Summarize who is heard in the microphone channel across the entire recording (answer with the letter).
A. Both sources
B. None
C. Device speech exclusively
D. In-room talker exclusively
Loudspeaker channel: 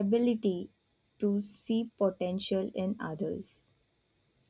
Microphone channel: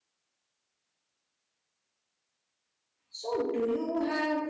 D